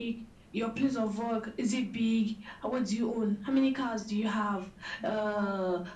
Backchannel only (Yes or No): Yes